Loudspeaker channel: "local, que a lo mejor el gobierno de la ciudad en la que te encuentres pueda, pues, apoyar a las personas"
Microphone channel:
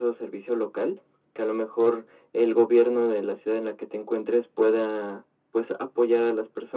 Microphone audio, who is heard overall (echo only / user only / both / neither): echo only